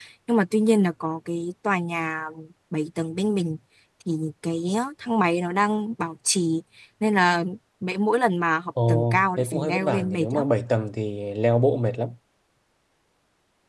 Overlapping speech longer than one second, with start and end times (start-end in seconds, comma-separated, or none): 8.9-10.5